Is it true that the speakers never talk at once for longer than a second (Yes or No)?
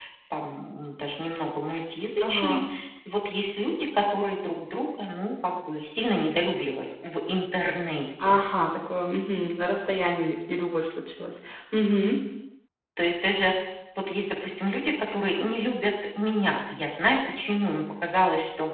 Yes